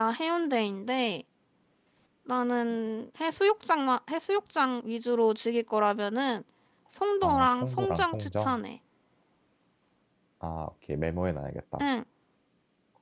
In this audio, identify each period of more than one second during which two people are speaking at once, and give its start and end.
7.2-8.6

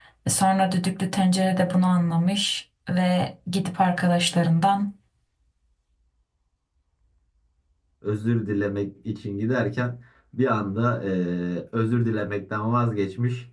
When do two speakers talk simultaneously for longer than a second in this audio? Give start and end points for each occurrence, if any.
none

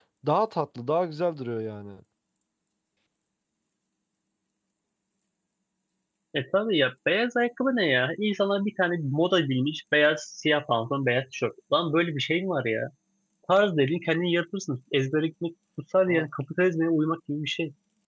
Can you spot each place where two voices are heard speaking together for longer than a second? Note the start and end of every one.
none

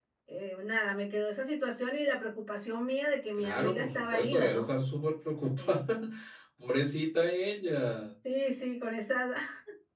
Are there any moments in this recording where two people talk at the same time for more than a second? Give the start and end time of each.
3.4-4.7

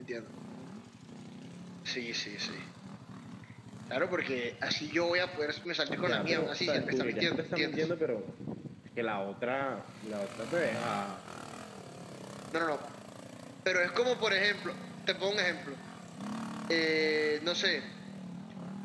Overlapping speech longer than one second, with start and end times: 6.0-7.9

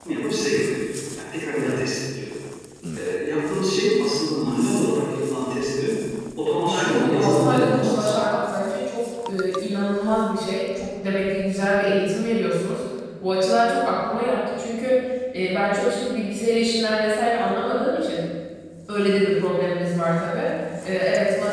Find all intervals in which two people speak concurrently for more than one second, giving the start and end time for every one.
6.6-8.3

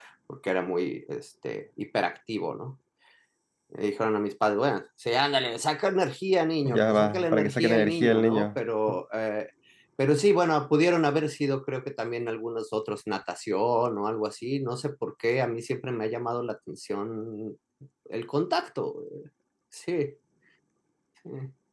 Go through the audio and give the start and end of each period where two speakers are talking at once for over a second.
6.7-8.6

